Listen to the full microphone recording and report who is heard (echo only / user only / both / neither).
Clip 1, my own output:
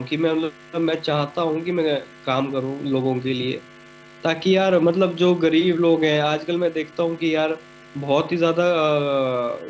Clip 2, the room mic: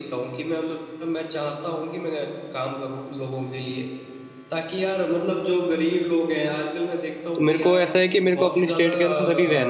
both